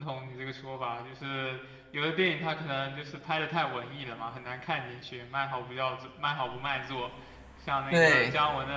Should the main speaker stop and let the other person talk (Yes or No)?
No